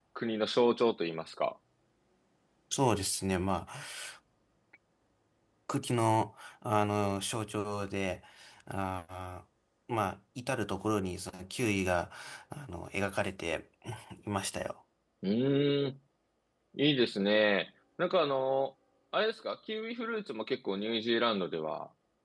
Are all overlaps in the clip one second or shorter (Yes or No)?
Yes